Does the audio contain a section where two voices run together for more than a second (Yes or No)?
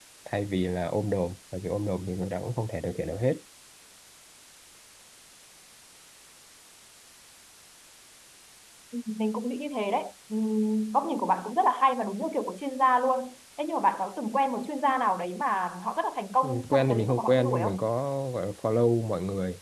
Yes